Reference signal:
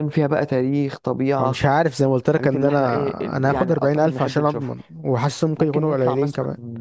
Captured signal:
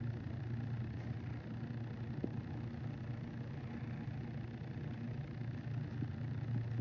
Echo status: none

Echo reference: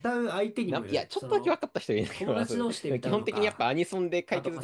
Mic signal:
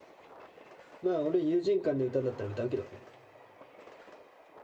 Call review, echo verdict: none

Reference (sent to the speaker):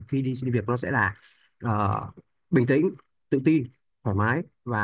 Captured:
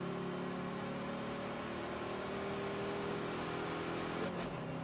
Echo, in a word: none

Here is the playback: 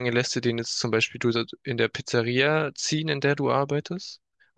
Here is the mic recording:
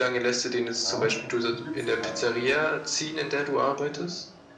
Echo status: present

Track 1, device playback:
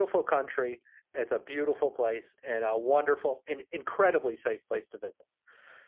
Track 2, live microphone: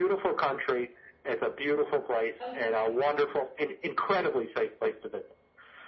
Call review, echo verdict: present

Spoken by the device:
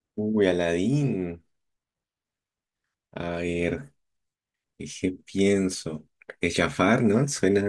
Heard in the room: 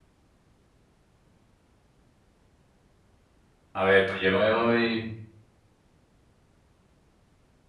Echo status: none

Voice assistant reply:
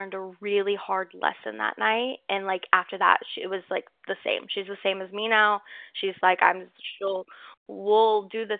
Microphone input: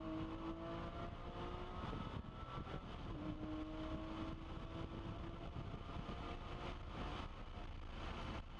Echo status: none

